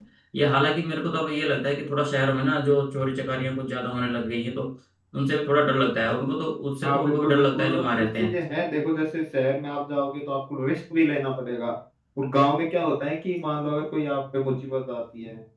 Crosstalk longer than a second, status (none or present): present